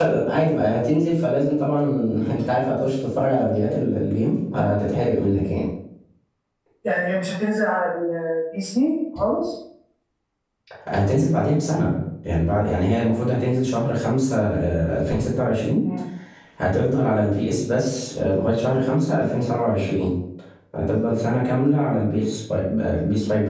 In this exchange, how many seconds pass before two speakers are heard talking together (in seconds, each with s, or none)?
none